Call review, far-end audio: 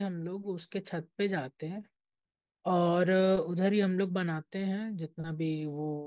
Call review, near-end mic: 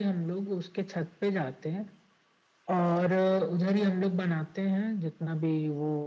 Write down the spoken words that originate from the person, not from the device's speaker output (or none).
none